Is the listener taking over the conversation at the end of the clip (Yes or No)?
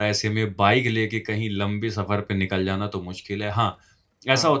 No